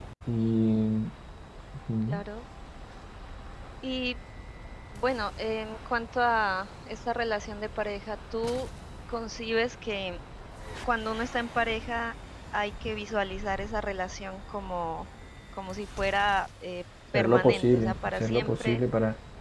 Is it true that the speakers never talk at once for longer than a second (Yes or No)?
No